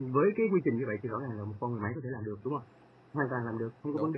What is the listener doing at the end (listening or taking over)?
listening